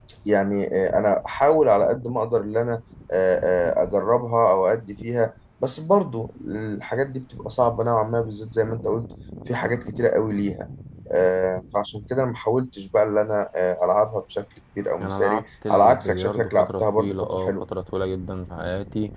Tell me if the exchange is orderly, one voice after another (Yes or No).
No